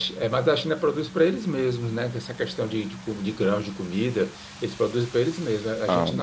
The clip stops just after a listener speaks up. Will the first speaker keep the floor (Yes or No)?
Yes